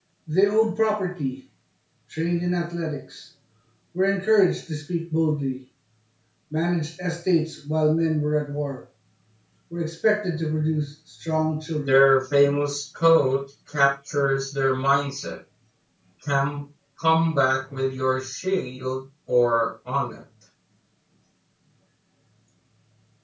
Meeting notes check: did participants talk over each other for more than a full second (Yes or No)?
No